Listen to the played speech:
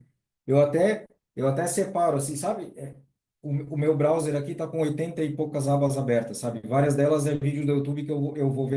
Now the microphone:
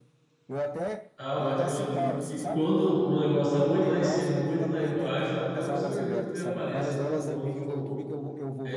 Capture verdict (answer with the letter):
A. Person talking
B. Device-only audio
A